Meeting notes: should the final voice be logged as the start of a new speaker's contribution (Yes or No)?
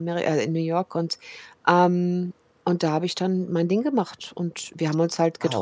No